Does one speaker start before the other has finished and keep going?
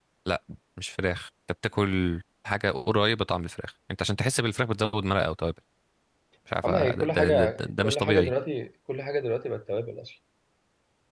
Yes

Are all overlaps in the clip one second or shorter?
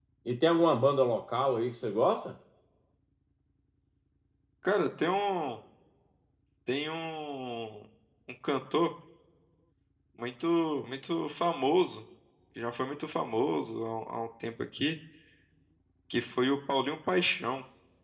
Yes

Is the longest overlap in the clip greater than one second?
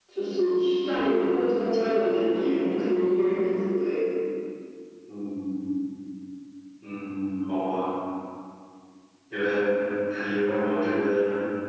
No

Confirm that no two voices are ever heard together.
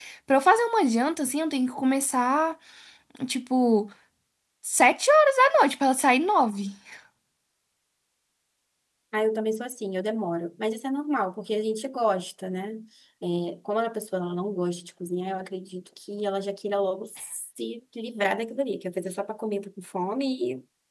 Yes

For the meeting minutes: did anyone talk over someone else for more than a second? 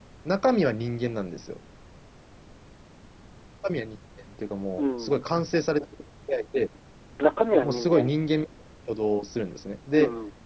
No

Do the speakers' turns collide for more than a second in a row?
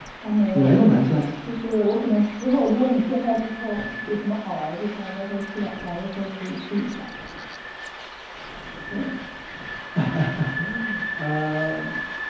No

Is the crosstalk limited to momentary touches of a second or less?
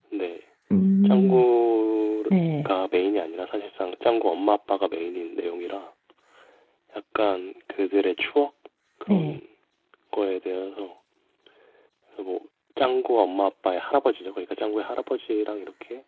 Yes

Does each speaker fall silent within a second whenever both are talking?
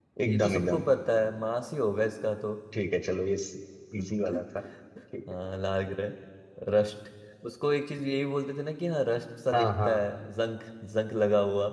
Yes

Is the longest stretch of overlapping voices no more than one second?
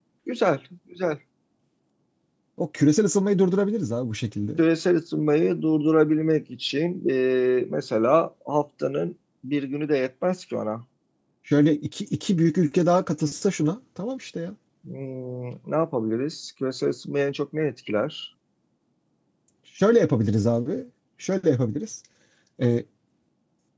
Yes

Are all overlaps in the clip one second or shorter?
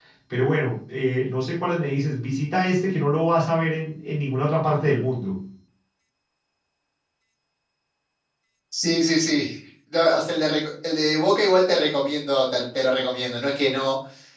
Yes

